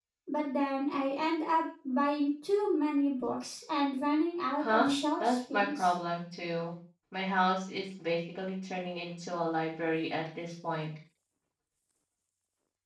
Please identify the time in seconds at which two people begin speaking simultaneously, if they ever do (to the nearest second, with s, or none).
5 s